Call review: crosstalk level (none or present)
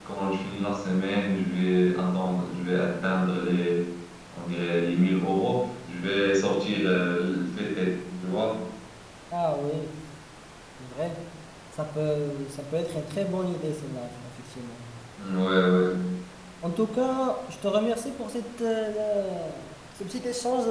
none